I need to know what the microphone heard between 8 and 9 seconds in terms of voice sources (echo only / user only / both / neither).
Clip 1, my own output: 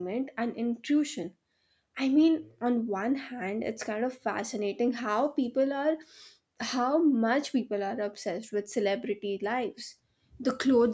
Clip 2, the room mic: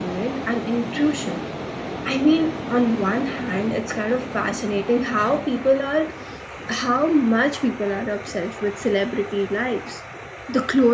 echo only